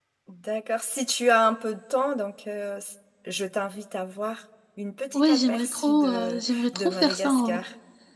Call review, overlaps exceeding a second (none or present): present